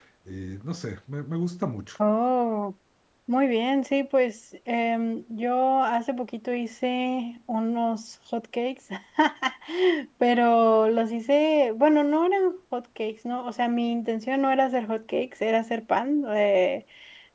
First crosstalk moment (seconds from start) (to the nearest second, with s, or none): none